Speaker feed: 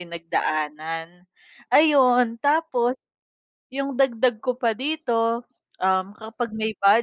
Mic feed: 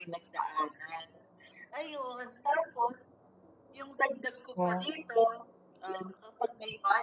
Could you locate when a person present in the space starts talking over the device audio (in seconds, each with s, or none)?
4.6 s